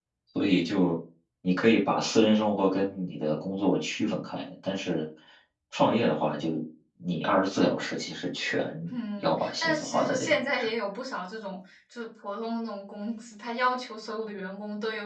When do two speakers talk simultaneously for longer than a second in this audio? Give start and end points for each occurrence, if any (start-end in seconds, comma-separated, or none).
9.2-10.7